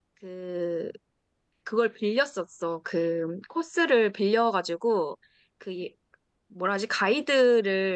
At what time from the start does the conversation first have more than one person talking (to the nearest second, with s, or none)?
none